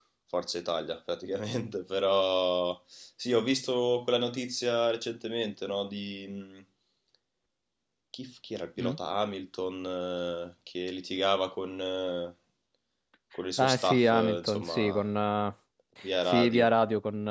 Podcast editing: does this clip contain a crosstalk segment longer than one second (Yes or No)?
Yes